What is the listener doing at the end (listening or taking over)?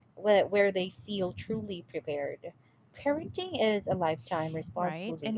taking over